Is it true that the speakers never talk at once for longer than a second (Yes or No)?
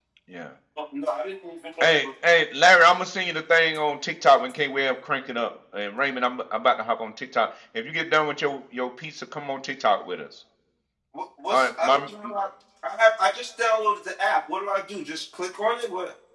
Yes